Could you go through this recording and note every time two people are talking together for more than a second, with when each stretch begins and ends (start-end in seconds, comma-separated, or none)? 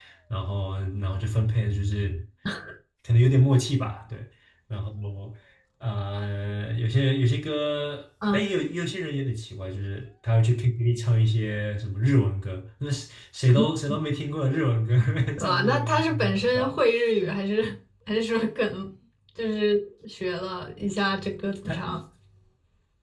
15.4-16.7